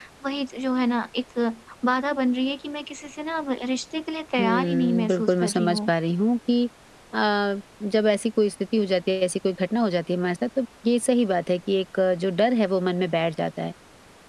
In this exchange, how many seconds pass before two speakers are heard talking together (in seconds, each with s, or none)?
4.4 s